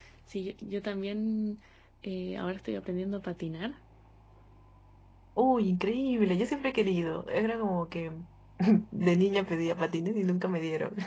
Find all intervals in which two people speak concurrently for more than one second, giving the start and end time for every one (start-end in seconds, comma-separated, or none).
none